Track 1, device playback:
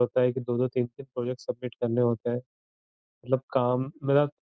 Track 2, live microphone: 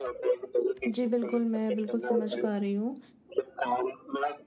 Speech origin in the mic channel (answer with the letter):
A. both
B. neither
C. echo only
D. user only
A